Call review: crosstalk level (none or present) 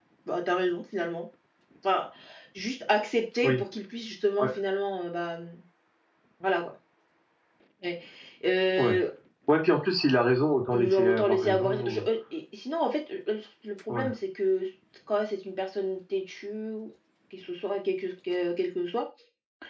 present